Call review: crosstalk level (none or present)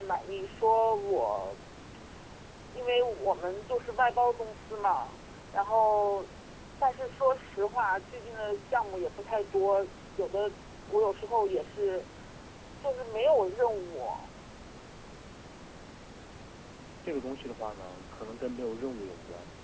none